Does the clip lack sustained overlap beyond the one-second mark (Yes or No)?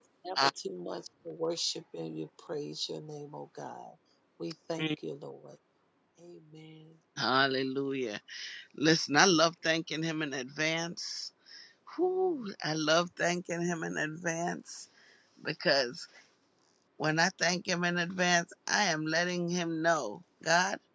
Yes